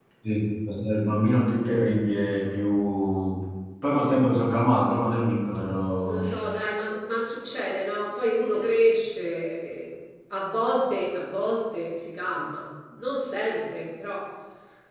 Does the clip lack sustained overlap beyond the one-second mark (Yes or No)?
Yes